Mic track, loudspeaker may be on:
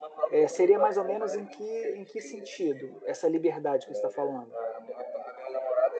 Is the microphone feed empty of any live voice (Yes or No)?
No